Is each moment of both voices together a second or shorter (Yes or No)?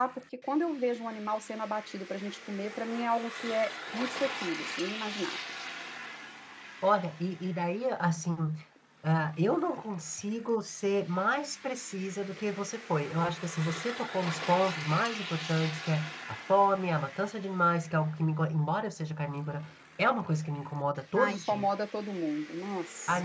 Yes